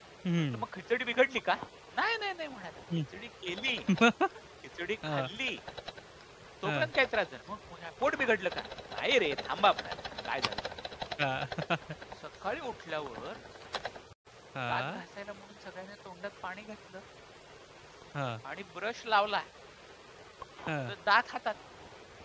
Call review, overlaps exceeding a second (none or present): none